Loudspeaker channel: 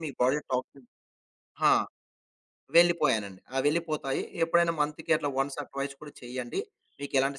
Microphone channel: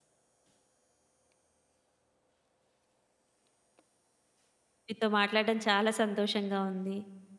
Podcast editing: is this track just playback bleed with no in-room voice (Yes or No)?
No